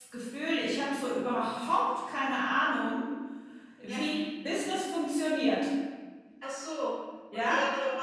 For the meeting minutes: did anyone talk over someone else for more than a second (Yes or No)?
No